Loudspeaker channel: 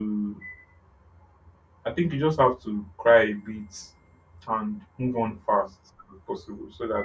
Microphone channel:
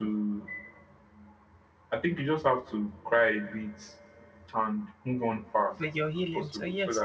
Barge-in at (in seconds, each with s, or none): 5.8 s